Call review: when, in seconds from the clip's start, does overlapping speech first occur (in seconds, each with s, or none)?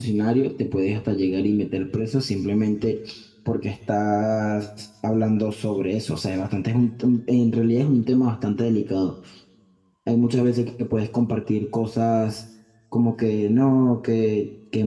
none